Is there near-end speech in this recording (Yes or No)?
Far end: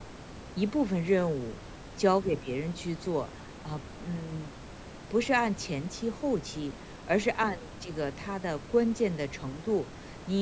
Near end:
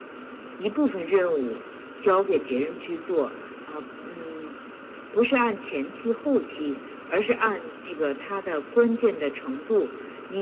No